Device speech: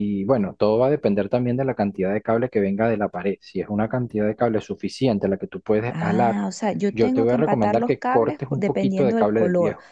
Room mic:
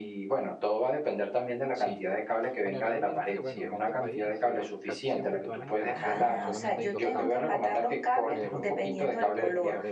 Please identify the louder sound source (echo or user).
echo